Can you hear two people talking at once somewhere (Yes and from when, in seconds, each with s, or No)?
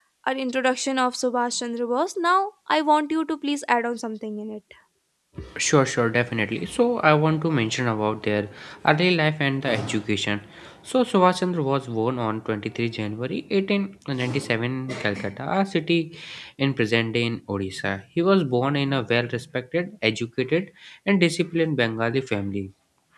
No